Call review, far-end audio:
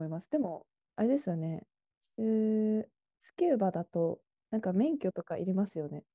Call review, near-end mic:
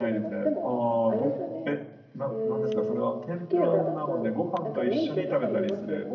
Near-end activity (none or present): present